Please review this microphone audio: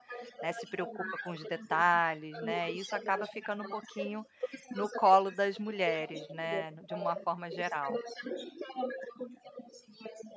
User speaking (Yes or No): Yes